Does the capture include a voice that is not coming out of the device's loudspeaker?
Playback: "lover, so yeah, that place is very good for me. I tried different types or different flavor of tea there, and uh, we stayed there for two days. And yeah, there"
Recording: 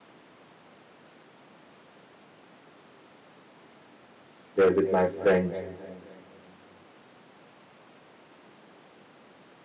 Yes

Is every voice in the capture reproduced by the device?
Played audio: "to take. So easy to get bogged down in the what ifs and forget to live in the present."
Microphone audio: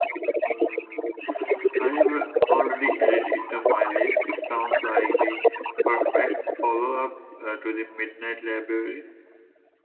No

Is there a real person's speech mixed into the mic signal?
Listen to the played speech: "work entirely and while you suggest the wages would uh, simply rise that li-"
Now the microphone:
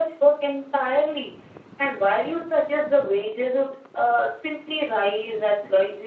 No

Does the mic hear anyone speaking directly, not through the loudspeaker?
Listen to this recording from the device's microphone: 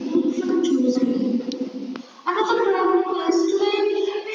No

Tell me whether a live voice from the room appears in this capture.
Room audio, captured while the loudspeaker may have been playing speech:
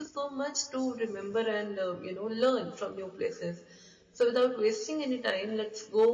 Yes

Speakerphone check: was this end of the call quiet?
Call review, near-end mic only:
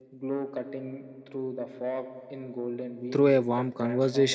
No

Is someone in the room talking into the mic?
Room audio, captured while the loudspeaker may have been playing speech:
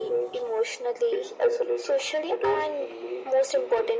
No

